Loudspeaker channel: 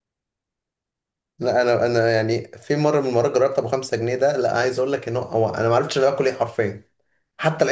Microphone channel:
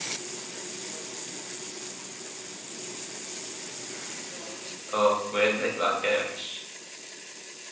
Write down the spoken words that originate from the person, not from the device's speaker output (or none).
اه وده يبقى على كده وحش